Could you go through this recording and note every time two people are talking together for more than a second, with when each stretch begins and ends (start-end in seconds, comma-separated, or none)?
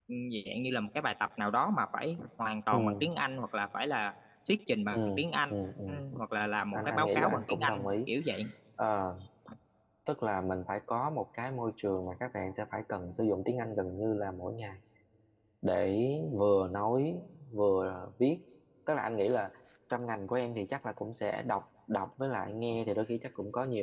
6.7-7.9